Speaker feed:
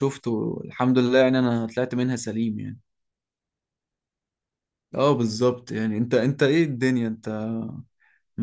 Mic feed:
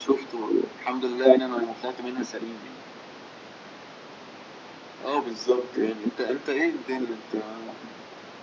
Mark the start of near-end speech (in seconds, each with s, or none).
none